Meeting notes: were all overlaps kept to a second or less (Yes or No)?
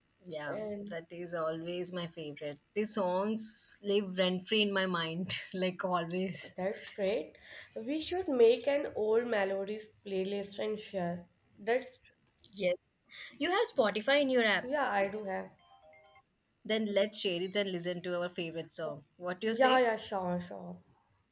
Yes